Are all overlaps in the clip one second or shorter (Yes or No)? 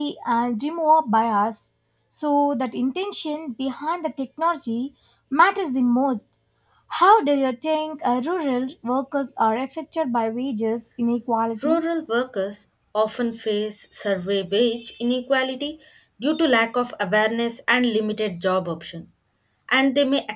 Yes